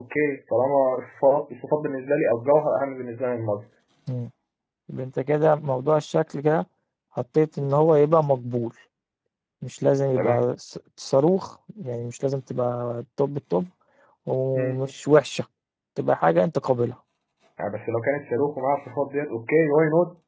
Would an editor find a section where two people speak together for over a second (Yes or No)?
No